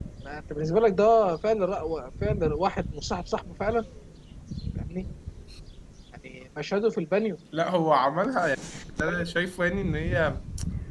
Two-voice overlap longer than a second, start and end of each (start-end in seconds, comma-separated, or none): none